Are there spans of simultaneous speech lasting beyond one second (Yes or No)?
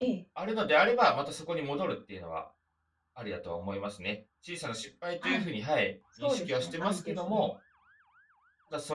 Yes